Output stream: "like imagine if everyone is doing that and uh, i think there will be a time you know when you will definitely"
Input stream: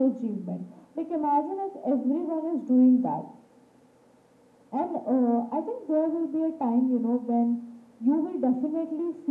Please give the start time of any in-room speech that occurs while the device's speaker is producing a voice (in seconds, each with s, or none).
none